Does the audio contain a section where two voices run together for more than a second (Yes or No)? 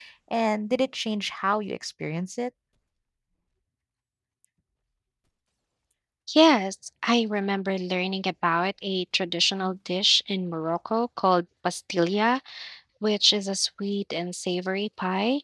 No